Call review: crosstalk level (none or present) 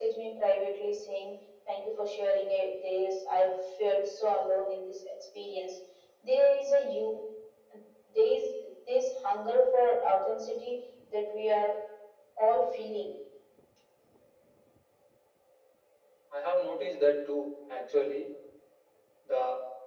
none